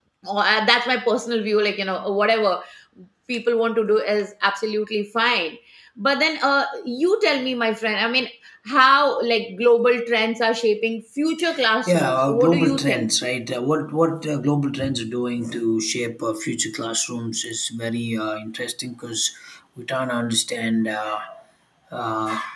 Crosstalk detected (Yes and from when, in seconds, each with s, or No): Yes, from 11.9 s